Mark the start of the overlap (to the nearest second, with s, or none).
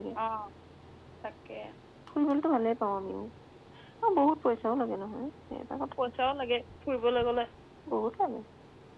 none